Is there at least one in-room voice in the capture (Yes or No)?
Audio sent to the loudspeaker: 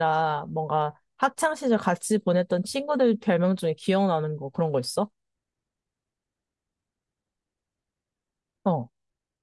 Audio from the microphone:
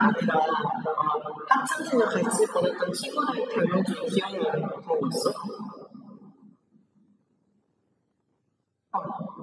No